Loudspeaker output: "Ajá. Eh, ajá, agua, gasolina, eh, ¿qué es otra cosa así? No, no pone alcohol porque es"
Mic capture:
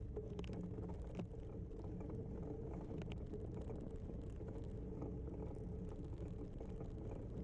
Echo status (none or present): none